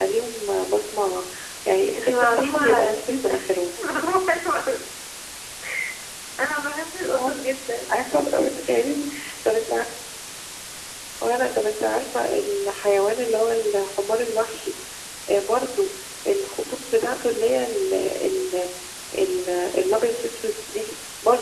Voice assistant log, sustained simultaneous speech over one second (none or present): present